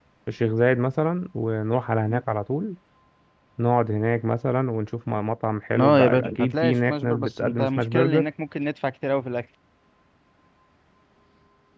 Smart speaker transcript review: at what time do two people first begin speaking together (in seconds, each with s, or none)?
5.7 s